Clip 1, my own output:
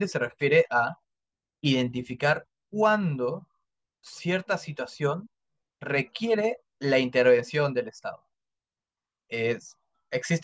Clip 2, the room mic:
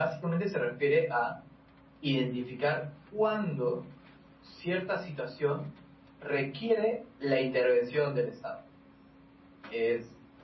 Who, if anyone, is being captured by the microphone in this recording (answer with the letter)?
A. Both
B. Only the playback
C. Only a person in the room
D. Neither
B